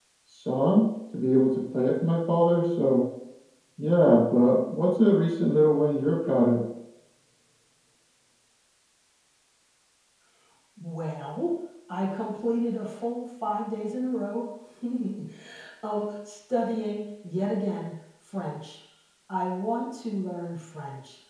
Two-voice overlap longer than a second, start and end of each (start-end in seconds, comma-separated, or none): none